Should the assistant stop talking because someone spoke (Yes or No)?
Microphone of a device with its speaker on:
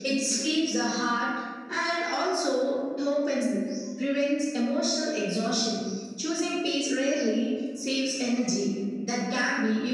No